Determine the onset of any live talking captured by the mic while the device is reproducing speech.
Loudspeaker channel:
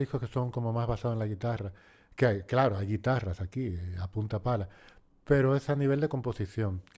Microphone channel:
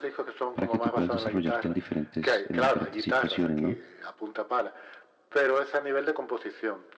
0.5 s

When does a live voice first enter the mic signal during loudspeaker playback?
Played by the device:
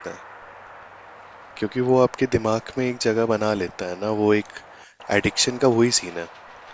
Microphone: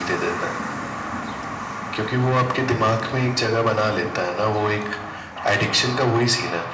none

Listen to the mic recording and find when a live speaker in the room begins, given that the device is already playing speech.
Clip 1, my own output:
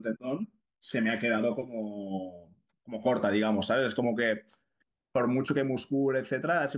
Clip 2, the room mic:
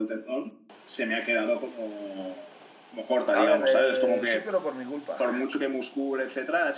3.3 s

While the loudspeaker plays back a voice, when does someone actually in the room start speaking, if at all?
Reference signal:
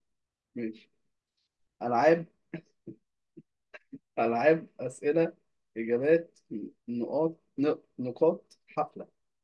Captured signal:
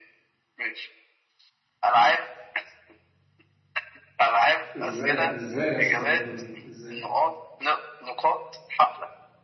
4.8 s

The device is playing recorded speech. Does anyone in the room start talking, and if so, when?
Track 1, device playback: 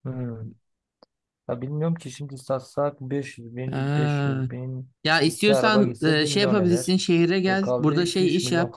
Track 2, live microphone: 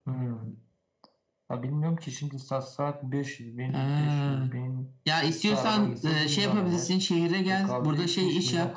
none

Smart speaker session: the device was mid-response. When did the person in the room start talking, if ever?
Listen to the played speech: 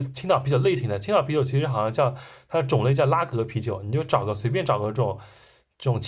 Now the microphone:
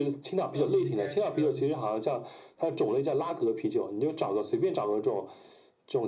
0.5 s

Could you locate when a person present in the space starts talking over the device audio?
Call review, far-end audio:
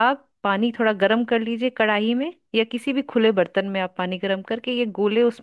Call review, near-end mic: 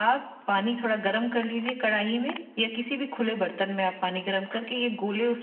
none

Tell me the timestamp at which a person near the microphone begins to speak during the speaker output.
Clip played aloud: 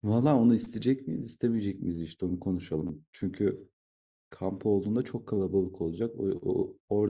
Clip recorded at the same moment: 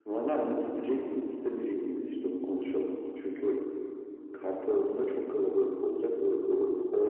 none

